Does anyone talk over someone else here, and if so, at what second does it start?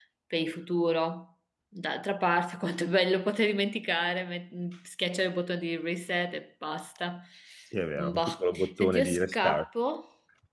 8 s

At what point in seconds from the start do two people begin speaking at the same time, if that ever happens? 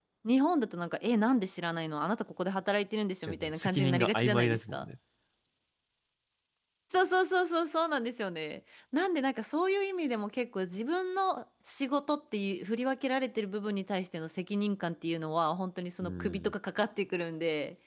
3 s

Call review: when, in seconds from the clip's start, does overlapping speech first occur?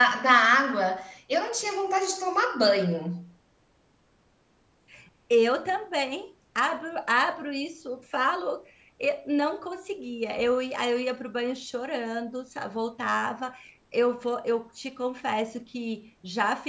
none

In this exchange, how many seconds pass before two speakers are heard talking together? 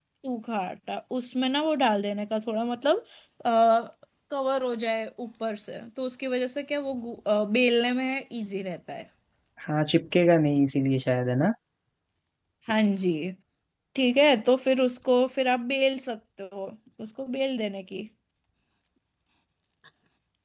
none

